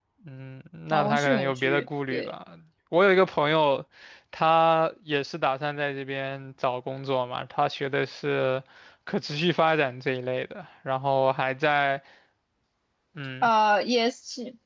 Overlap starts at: 0.9 s

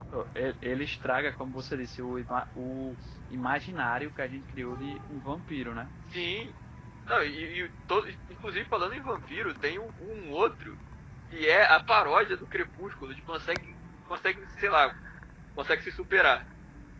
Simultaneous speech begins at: none

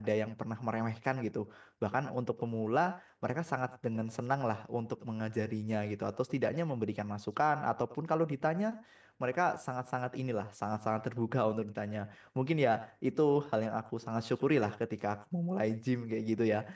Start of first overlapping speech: none

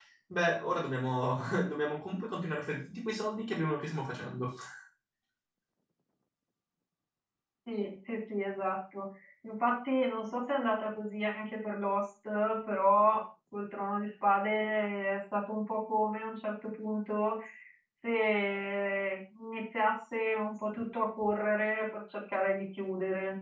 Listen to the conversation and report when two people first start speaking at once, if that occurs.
none

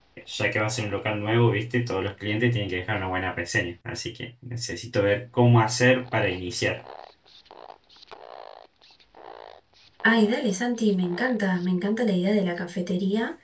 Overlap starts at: none

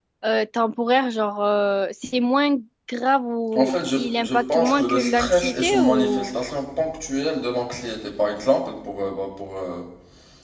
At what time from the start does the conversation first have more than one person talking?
3.5 s

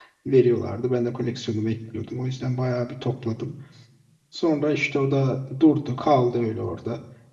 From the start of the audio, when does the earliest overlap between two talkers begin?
none

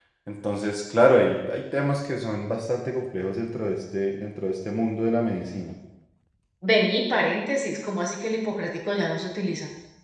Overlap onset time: none

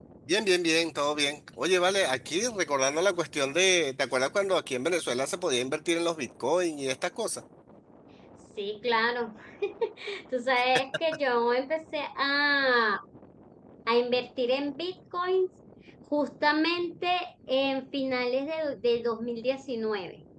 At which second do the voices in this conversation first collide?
none

